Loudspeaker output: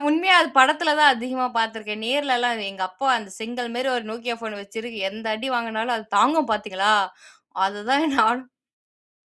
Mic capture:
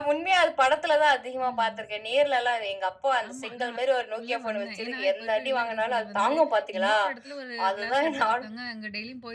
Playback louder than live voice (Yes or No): Yes